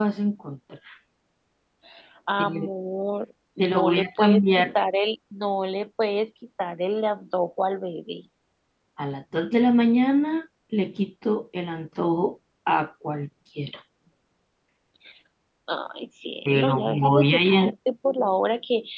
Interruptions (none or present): present